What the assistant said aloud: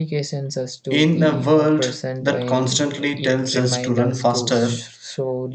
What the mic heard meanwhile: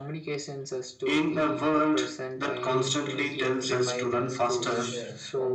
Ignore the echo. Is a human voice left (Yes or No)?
Yes